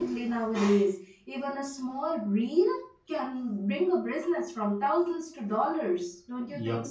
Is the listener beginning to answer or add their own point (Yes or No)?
Yes